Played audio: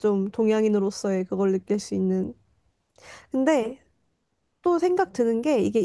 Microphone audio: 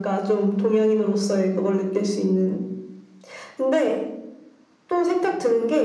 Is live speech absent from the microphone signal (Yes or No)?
Yes